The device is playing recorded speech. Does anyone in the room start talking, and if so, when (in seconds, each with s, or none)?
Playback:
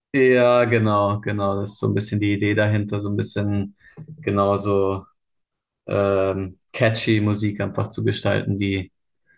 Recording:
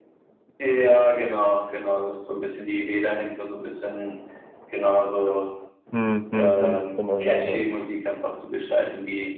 5.9 s